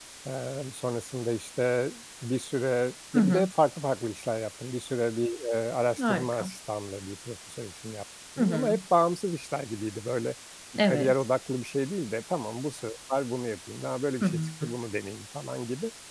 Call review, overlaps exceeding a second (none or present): none